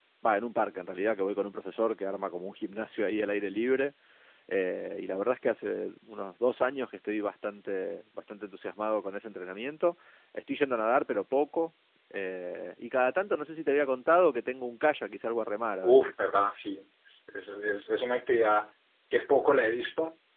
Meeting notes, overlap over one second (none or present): none